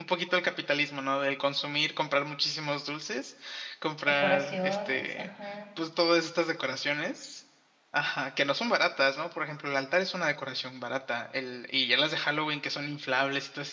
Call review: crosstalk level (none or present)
present